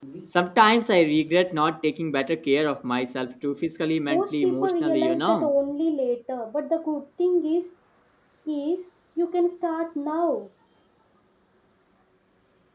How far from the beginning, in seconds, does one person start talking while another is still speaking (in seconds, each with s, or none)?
4.1 s